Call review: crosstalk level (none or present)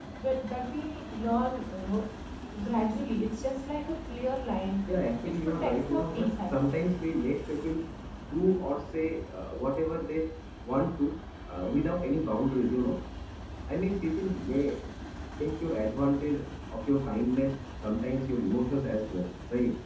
present